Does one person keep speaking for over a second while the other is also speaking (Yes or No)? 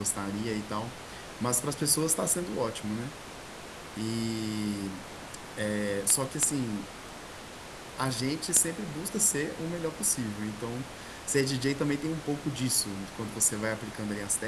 No